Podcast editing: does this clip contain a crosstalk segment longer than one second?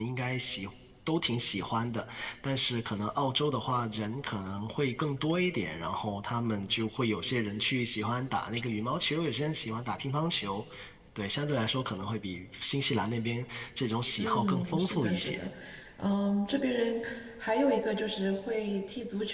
Yes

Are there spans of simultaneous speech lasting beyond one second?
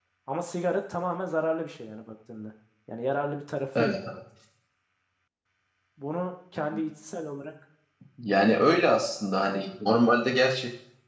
No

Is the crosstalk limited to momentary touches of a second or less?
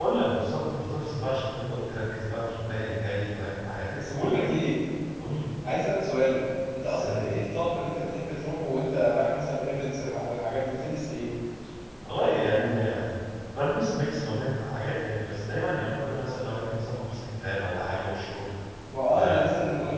Yes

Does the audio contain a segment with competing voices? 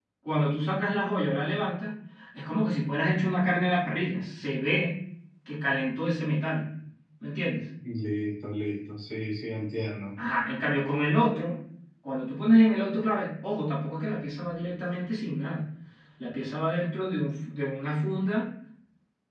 No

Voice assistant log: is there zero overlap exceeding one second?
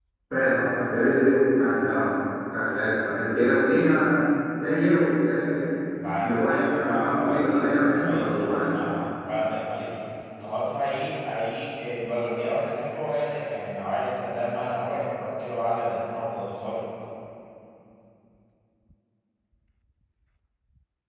No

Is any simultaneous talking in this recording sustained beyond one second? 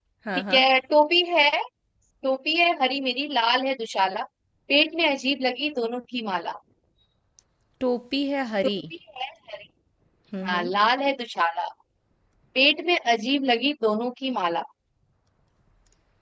No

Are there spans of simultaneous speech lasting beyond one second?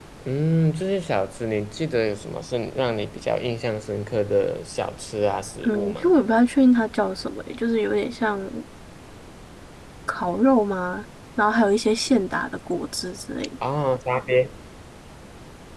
No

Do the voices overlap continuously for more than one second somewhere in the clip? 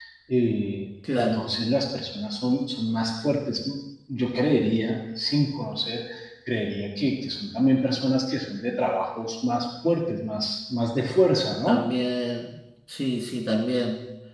No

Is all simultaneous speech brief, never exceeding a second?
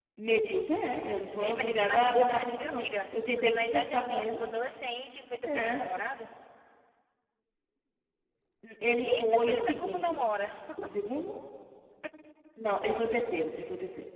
No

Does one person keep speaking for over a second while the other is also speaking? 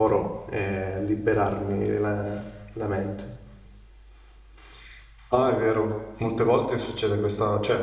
No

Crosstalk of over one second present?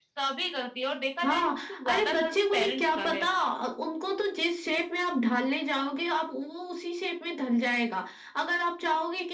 Yes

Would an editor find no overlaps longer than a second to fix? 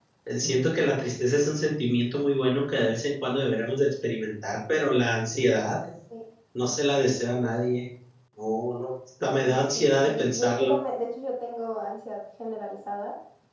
No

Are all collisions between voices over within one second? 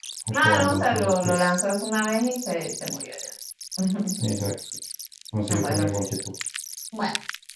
No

